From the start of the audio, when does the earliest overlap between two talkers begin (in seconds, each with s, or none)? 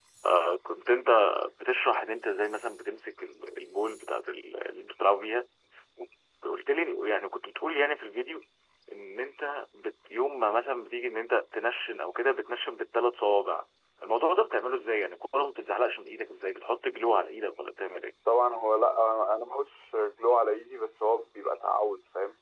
none